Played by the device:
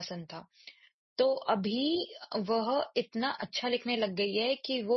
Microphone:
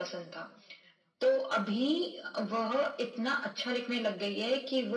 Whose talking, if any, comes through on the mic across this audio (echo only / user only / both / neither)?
echo only